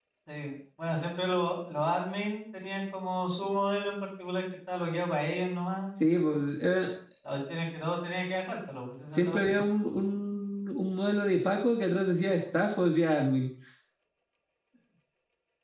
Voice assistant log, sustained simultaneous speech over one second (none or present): none